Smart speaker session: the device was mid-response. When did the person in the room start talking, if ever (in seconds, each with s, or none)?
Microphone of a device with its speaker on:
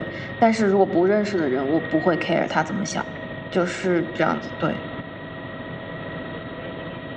none